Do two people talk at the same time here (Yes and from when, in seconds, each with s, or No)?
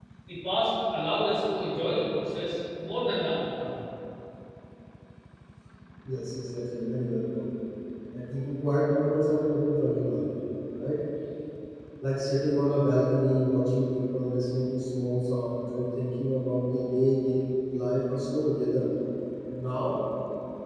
No